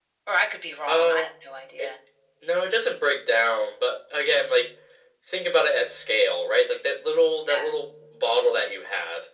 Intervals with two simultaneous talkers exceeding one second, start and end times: none

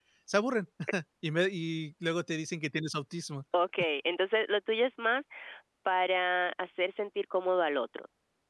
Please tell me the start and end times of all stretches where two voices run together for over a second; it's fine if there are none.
none

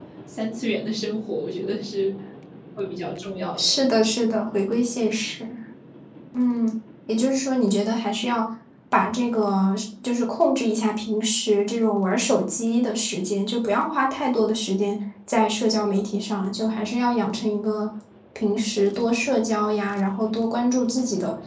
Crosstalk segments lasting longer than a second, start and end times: none

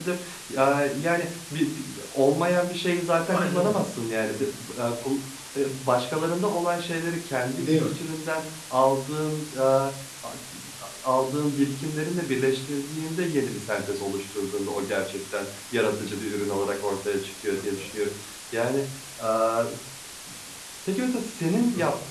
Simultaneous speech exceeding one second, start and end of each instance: none

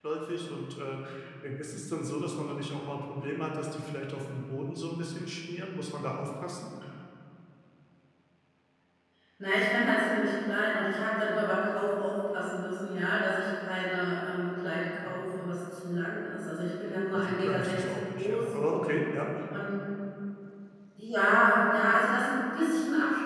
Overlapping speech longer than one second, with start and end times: 17.1-18.5

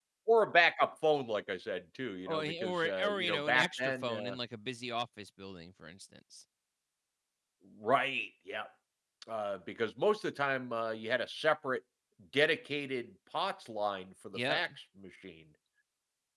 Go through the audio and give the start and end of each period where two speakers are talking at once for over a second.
2.3-4.4

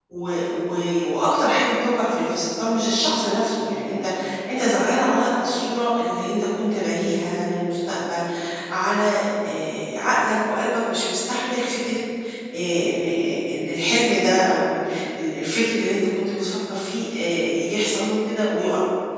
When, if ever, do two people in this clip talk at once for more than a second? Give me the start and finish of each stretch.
none

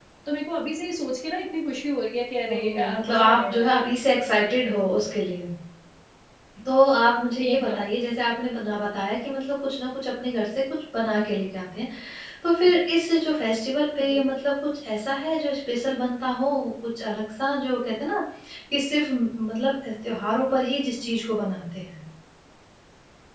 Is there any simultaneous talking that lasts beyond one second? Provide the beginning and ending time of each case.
2.5-3.7

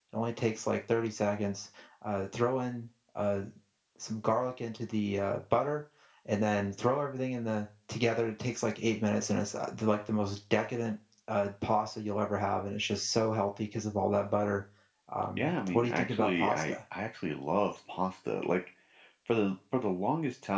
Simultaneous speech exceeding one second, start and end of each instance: 15.4-16.7

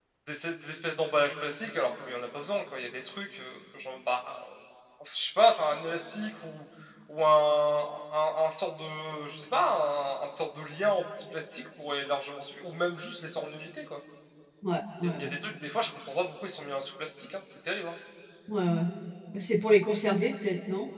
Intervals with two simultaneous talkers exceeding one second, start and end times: none

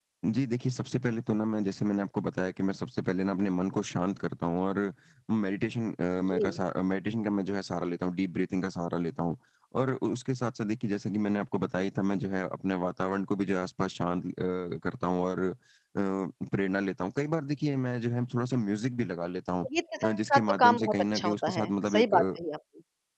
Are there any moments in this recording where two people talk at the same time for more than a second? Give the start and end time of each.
20.0-22.3

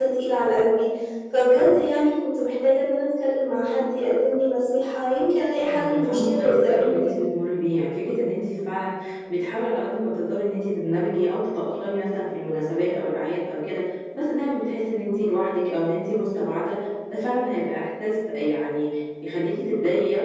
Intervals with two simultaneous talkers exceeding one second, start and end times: 5.6-7.1

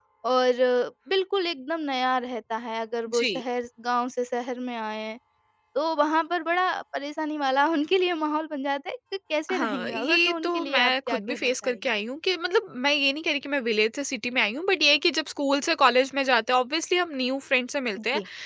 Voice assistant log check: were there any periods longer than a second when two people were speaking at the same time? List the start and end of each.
9.5-11.8

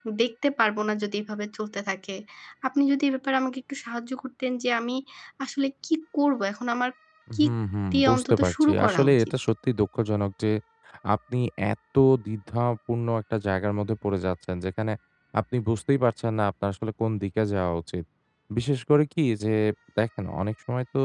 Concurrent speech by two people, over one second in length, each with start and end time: 7.9-9.3

